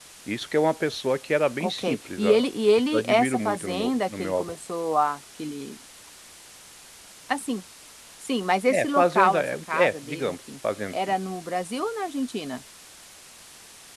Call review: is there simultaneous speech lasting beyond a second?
Yes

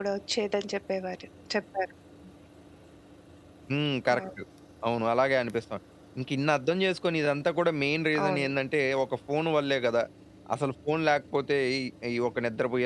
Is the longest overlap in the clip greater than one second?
No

